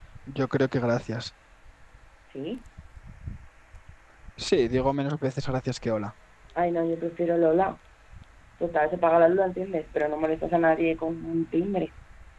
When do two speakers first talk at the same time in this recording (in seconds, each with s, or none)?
none